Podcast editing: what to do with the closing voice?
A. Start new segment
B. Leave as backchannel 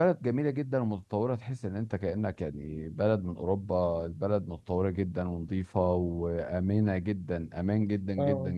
A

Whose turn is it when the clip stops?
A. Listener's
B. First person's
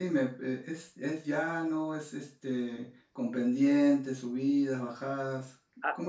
A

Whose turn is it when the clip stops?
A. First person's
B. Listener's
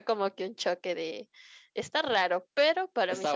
A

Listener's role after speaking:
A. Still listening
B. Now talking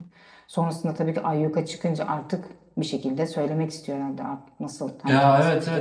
B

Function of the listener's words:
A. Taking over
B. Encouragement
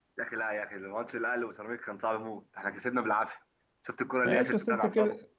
A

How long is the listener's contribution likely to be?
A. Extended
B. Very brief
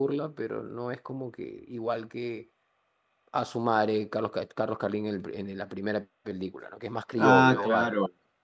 A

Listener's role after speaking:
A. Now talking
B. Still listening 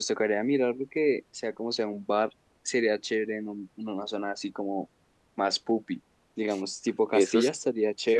A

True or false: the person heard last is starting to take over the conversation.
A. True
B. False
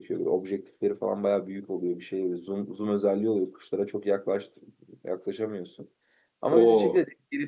B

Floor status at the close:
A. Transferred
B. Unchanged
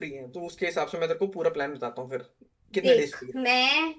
A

